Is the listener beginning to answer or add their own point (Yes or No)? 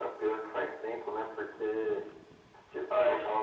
No